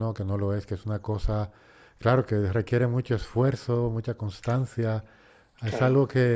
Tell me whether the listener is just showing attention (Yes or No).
Yes